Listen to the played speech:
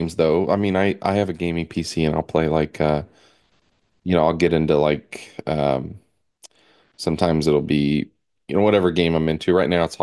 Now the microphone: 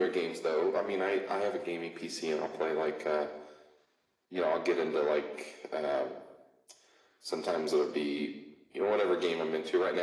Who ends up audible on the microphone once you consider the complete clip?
echo only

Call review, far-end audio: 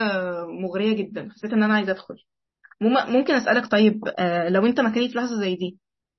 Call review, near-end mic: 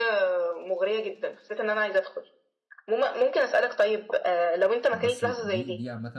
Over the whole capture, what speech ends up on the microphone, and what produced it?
both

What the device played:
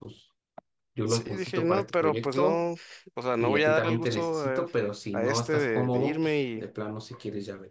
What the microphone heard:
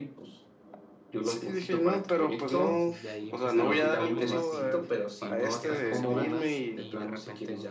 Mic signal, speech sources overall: both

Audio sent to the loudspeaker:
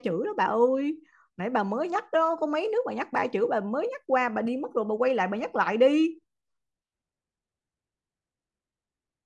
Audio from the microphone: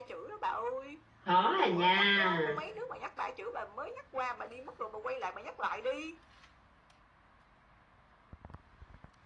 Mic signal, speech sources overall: both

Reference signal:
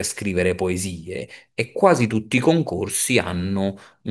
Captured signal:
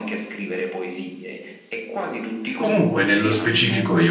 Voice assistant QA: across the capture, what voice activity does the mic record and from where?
both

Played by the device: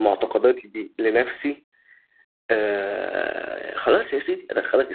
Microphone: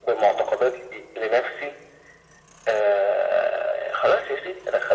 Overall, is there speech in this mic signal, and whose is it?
echo only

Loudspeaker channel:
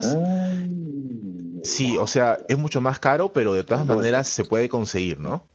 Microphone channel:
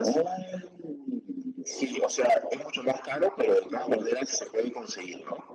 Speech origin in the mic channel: echo only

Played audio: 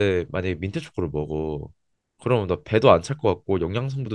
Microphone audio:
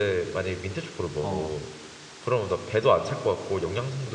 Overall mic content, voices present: both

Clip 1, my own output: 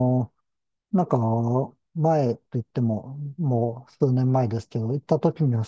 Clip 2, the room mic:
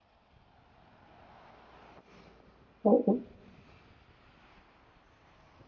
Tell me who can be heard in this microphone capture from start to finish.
user only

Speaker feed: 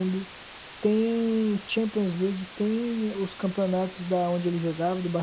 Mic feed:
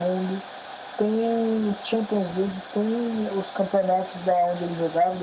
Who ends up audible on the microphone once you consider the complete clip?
echo only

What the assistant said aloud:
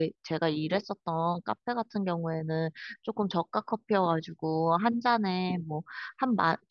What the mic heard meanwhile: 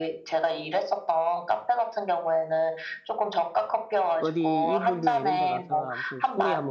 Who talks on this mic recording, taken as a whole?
both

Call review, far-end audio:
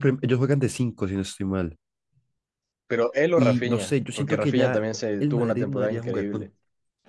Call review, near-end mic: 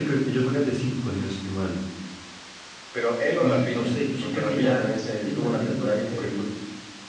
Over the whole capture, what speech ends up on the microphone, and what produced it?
echo only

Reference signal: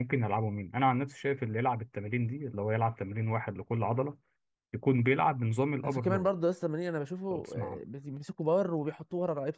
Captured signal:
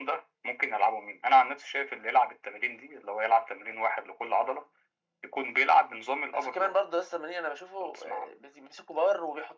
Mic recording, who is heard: echo only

